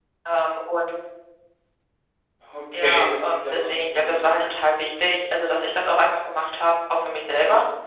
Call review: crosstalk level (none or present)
present